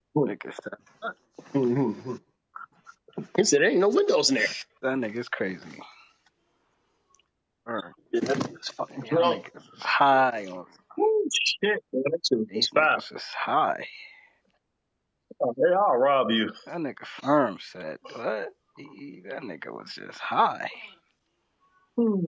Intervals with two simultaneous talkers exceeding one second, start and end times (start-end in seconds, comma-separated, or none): none